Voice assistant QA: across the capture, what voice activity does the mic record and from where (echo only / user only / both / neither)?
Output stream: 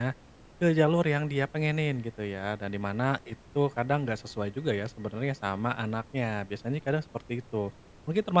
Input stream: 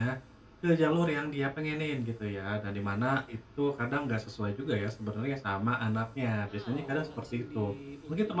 both